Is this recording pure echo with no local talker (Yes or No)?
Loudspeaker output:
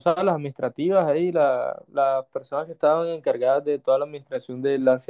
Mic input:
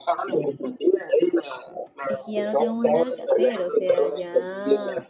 No